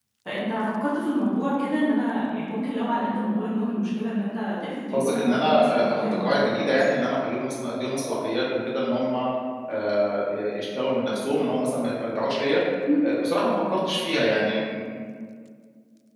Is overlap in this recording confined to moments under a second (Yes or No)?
No